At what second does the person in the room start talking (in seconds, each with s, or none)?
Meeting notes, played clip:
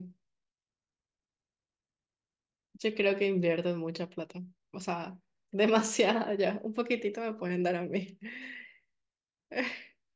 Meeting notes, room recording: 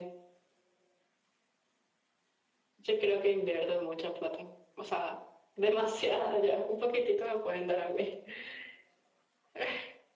none